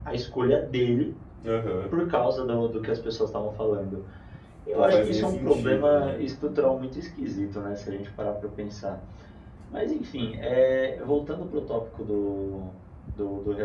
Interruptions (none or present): present